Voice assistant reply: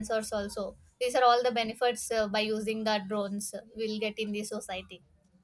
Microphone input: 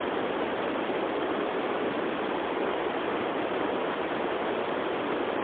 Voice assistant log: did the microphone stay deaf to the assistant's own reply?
Yes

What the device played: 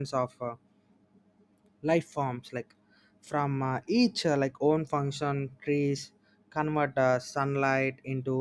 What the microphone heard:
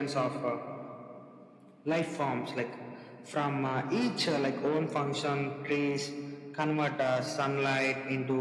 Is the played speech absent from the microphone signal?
No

